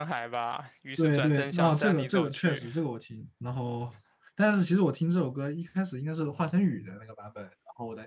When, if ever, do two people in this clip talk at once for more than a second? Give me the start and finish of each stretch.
1.0-2.6

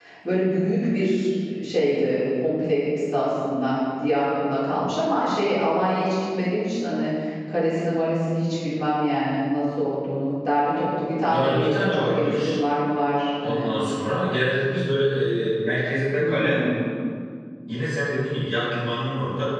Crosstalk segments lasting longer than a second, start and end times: 11.2-12.6

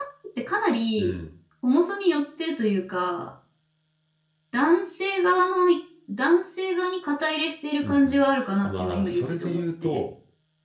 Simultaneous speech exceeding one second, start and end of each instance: 8.6-10.1

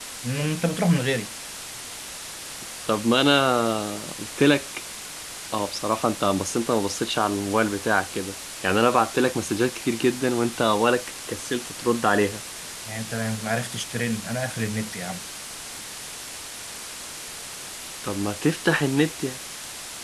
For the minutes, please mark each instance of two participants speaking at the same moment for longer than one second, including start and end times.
none

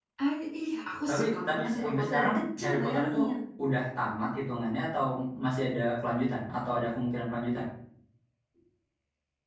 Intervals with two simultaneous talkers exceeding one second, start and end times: 1.1-3.2

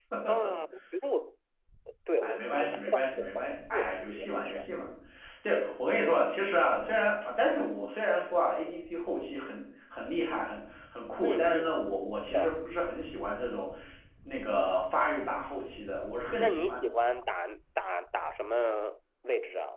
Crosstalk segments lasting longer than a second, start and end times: 2.2-4.5

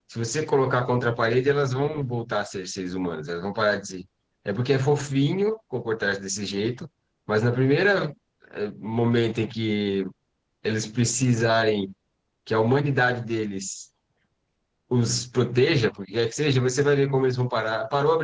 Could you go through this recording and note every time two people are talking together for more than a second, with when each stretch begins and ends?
none

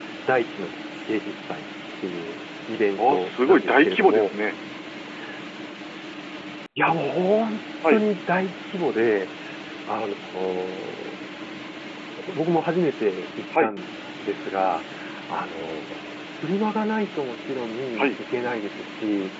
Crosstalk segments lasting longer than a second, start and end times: 3.0-4.3

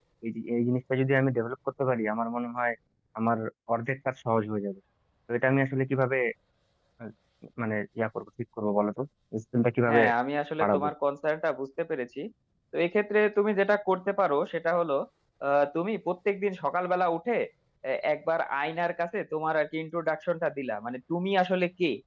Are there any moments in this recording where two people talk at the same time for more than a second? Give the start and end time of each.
none

